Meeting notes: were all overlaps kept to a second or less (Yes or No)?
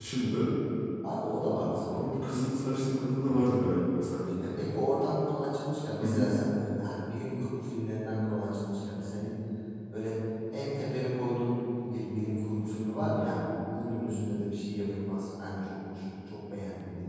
Yes